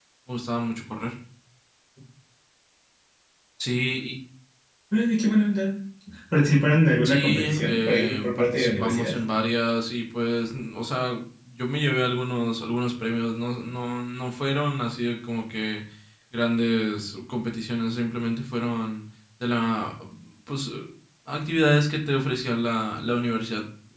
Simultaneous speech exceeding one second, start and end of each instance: 7.0-9.2

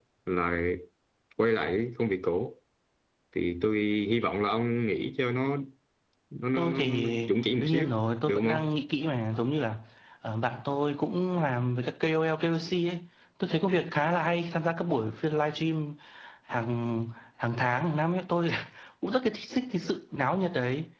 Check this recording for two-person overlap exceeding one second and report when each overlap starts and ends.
6.6-7.9

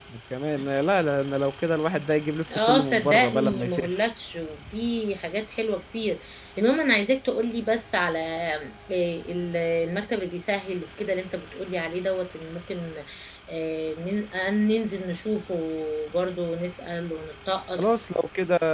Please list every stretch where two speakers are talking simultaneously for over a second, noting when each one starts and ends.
2.6-4.0

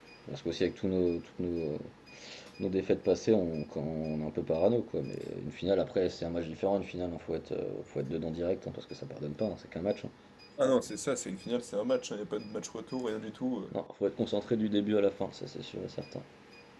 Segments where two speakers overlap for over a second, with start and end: none

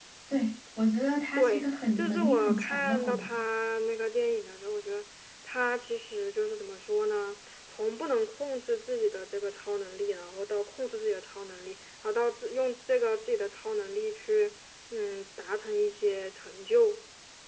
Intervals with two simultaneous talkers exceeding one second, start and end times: 1.4-3.4

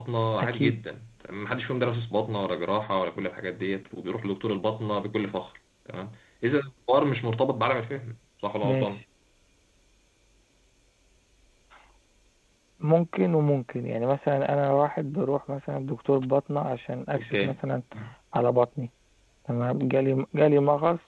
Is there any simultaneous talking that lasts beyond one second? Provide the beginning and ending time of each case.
none

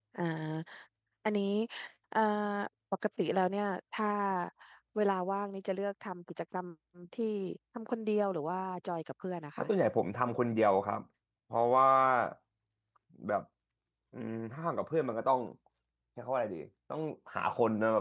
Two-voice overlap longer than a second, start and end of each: none

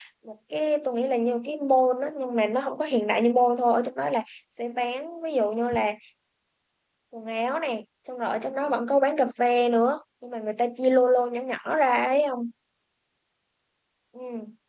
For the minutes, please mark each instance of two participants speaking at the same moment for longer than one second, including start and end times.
none

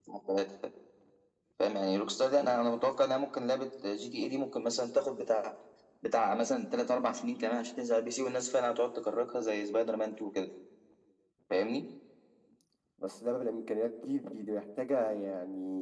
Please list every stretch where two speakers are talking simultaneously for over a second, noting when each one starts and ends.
none

